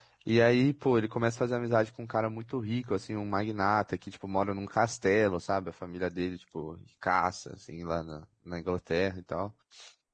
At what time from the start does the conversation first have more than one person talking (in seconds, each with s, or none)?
none